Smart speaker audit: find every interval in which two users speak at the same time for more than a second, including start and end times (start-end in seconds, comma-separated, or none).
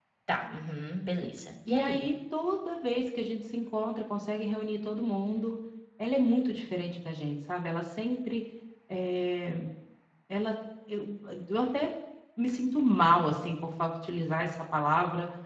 none